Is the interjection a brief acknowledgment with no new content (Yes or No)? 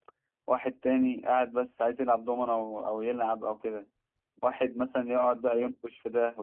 Yes